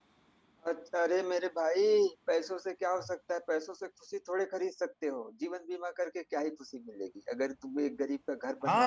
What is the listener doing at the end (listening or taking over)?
taking over